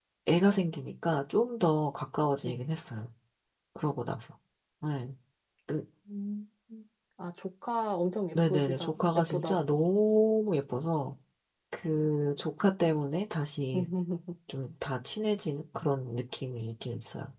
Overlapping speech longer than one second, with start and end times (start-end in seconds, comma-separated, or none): 8.5-9.9